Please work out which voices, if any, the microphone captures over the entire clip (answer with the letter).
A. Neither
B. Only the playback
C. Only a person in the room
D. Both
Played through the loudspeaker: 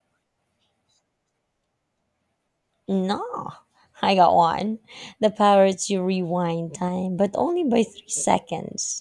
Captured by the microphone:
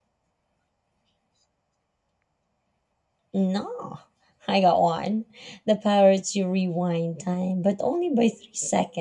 B